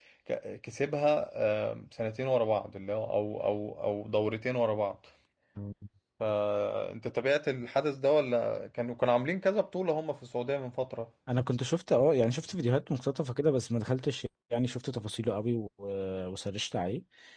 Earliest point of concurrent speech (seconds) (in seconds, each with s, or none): none